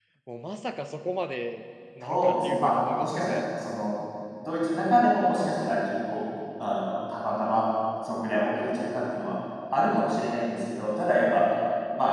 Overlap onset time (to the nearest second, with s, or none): 2 s